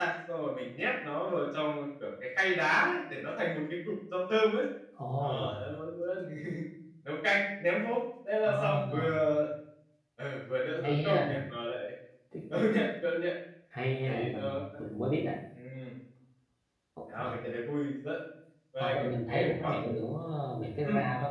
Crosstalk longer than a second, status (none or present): present